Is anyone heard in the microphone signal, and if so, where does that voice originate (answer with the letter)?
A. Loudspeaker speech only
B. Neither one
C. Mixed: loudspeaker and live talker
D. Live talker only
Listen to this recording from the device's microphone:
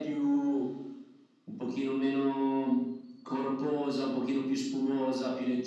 A